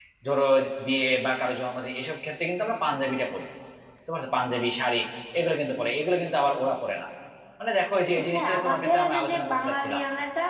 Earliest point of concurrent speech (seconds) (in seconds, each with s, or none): 8.3 s